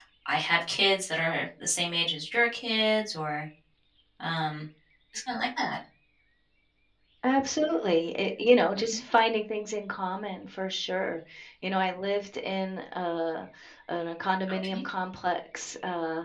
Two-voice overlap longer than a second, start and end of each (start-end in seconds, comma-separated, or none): none